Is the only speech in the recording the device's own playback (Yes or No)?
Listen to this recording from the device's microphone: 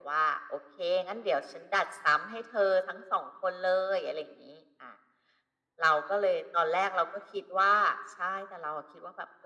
Yes